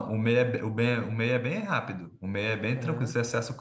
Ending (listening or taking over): listening